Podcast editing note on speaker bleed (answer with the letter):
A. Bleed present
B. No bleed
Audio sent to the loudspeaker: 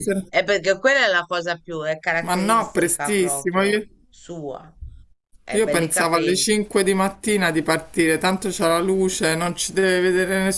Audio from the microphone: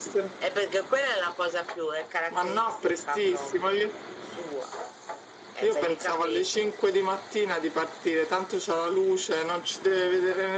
A